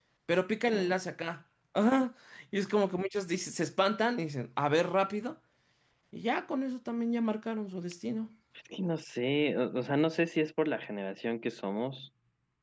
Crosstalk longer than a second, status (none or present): none